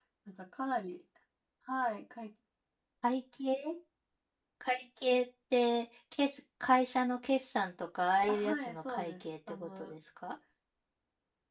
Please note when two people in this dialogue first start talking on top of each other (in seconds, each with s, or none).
8.3 s